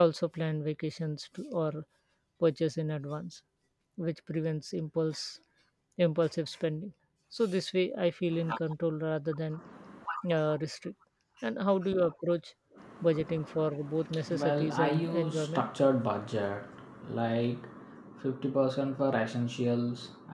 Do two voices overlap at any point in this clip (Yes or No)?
Yes